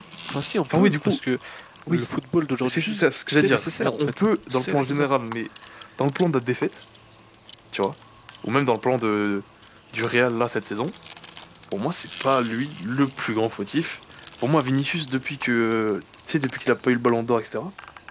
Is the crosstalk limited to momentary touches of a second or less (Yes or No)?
No